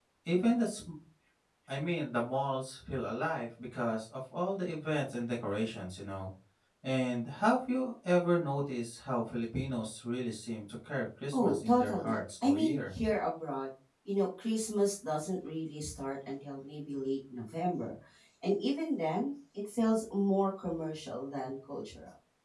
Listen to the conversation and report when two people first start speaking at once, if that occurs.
11.3 s

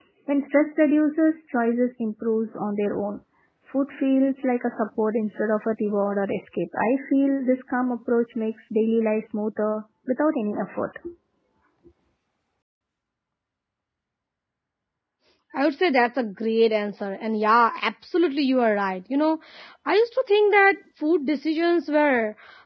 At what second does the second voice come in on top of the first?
none

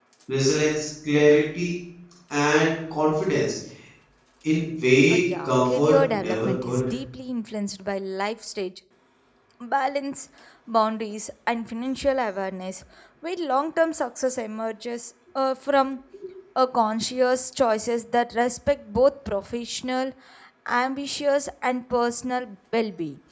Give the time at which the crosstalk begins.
5.1 s

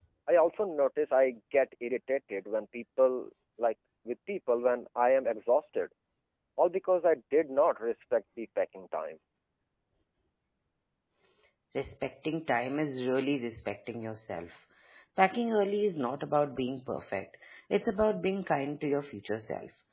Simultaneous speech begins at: none

